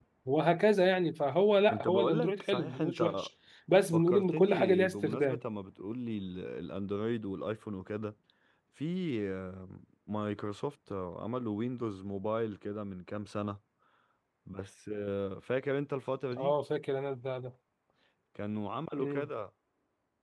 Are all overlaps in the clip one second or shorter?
No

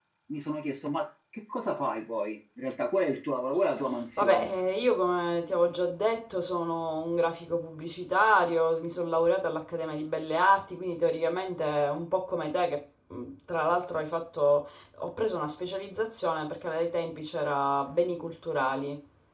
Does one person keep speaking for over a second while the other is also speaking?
No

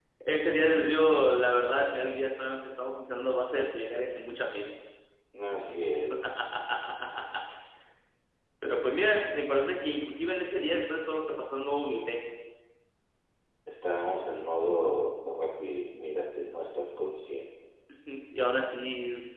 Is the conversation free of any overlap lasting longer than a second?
Yes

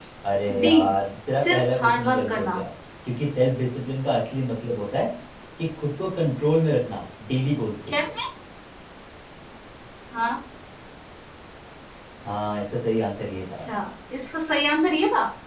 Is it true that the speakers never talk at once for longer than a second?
No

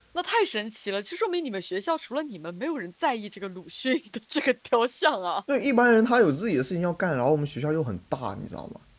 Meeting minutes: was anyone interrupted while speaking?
No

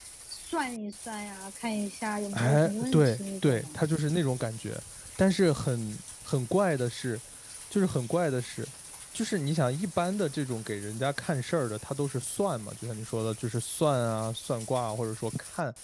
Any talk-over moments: Yes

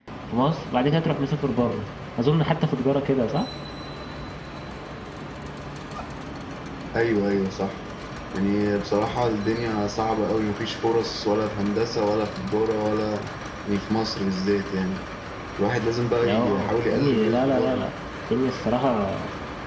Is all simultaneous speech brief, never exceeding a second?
No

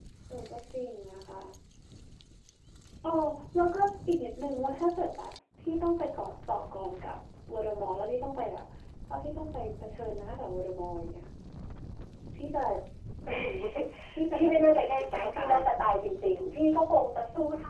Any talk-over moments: Yes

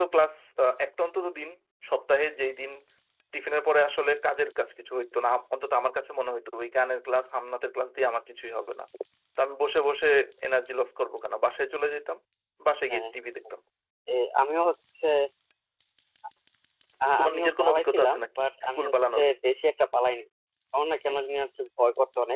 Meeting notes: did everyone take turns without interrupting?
No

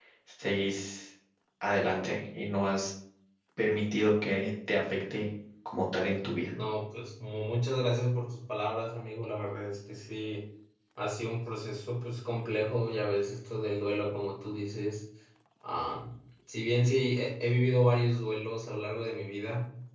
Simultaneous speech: No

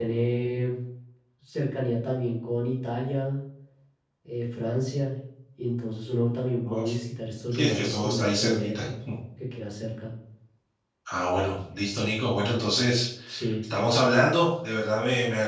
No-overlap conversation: No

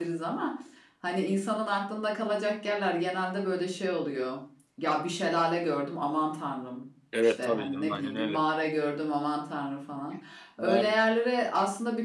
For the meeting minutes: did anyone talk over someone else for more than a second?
Yes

